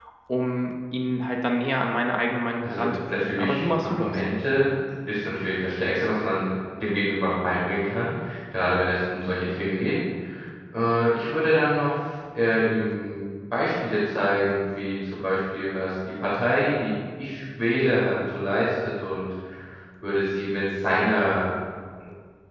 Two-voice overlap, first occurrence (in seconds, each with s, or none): 2.6 s